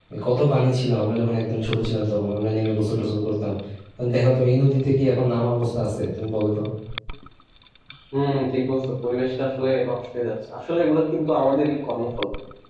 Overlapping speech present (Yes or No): No